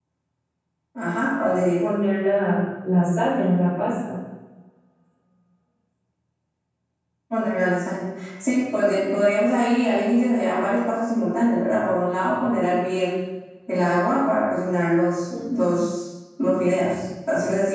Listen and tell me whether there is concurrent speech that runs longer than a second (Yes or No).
No